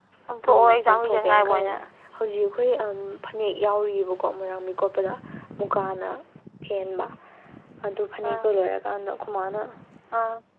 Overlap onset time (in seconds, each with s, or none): 0.5 s